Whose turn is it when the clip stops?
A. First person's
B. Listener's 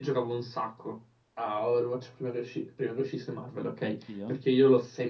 A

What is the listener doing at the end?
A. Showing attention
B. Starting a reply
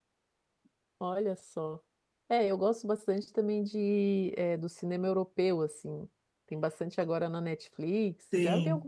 B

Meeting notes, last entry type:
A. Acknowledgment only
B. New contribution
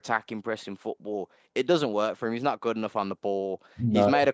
A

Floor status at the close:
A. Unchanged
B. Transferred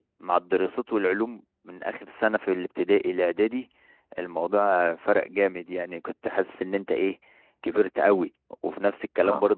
A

